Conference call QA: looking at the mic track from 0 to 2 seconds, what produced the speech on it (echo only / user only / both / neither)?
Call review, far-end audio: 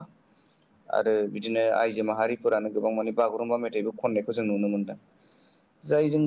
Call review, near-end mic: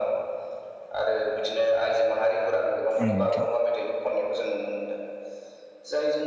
echo only